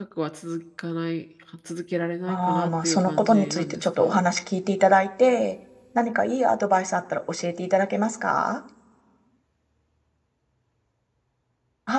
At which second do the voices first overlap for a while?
2.3 s

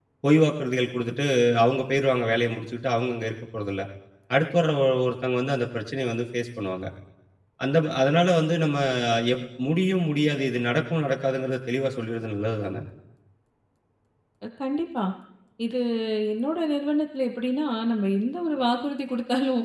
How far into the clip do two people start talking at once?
none

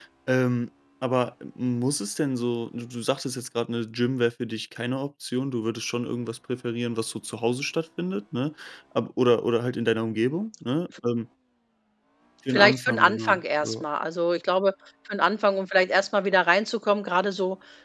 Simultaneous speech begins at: 12.5 s

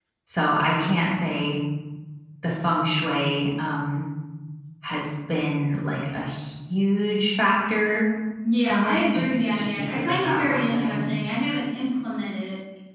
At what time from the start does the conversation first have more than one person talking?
8.7 s

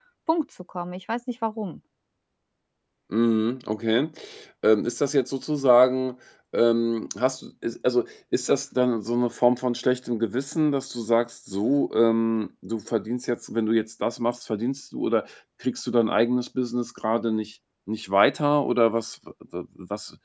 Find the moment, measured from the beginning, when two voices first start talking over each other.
none

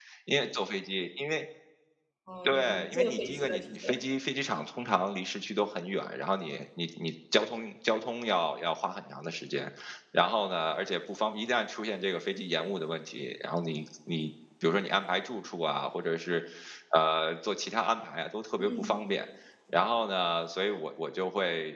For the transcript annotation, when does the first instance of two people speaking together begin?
2.4 s

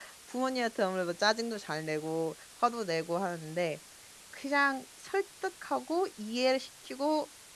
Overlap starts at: none

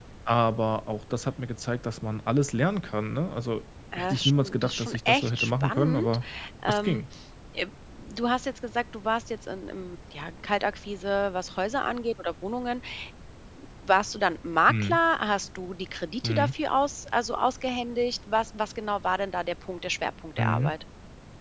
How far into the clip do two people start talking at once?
4.0 s

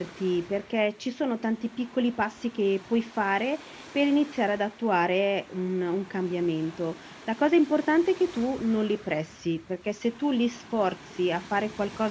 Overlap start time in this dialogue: none

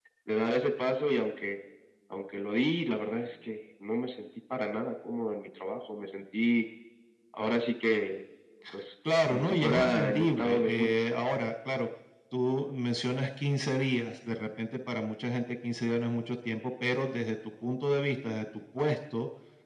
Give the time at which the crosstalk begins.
9.3 s

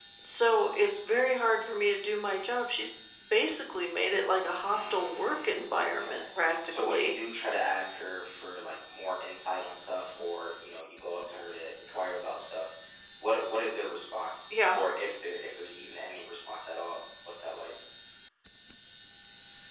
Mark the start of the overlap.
4.6 s

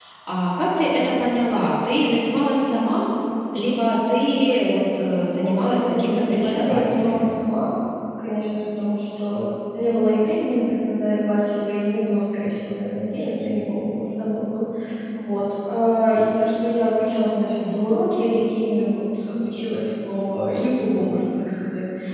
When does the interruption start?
5.3 s

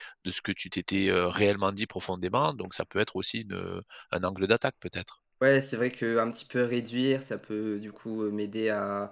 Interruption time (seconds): none

